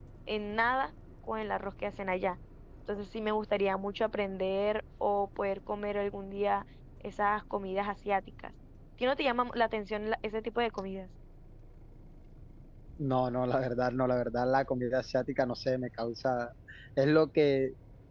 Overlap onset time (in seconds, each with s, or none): none